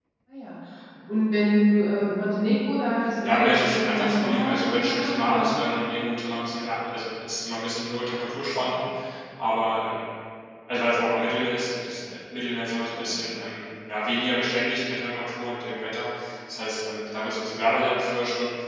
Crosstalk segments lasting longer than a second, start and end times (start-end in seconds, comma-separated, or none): 3.2-5.5